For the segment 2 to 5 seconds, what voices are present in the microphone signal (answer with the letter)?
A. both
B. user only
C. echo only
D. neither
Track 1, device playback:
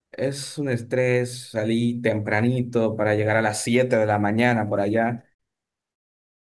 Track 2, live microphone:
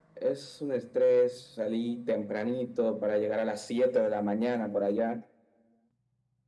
C